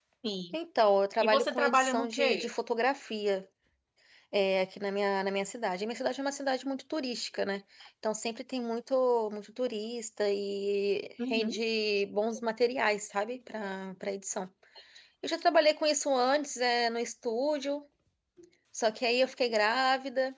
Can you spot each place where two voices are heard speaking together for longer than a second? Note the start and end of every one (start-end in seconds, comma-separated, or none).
1.2-2.5